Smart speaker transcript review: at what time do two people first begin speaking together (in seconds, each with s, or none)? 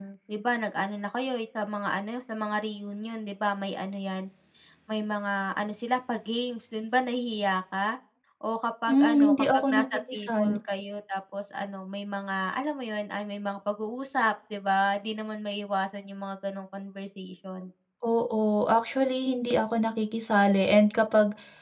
8.9 s